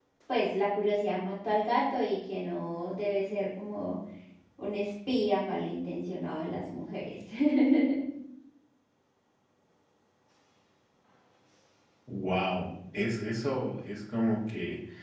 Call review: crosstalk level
none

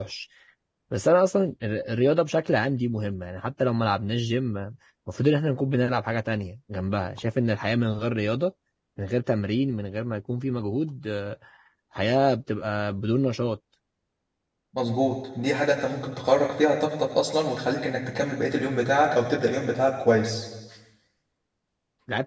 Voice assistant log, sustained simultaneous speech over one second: none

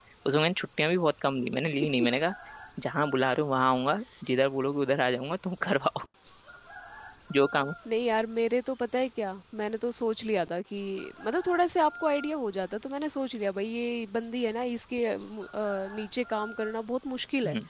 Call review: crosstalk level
none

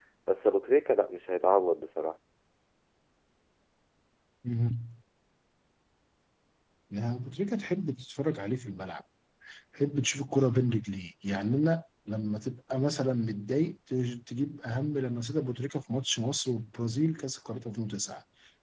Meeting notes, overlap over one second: none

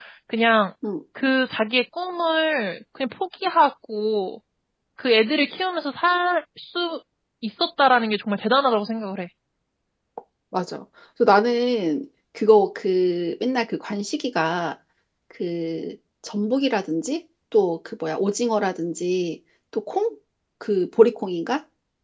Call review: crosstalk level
none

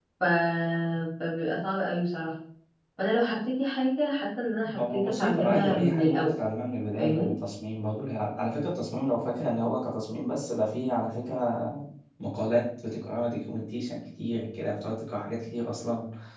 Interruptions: present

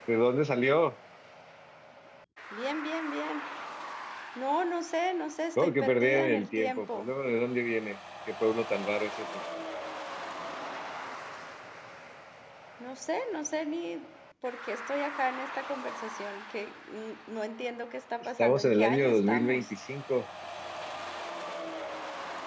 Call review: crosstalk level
present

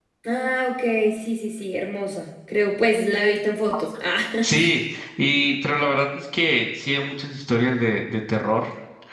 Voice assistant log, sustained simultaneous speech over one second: none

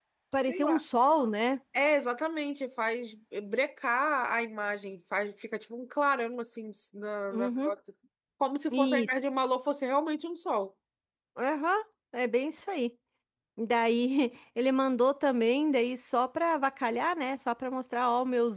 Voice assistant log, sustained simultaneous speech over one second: none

